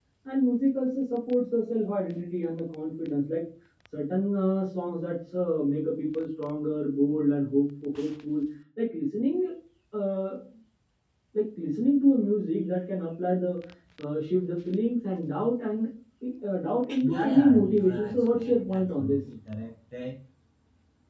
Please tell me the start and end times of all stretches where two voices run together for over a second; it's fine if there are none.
17.0-19.2

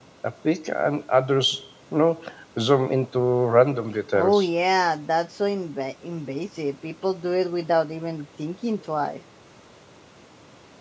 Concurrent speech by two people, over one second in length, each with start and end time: none

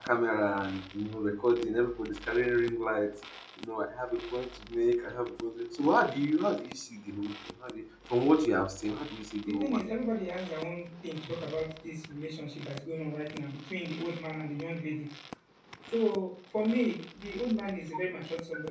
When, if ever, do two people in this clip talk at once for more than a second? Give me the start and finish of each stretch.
none

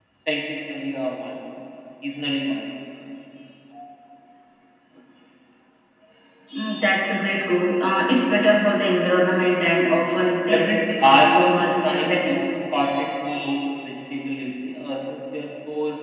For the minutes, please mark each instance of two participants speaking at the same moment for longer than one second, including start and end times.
10.5-12.4

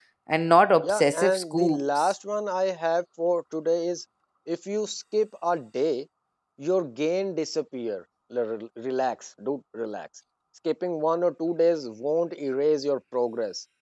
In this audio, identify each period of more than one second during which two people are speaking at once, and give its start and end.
0.8-2.1

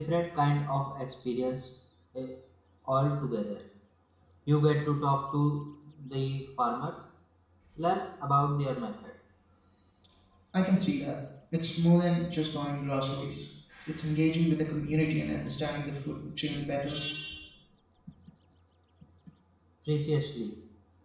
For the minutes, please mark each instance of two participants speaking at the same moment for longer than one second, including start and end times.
none

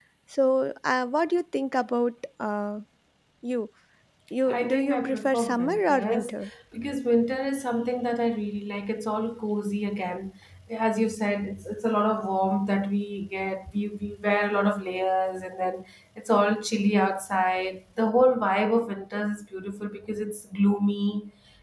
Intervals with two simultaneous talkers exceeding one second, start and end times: 4.5-6.3

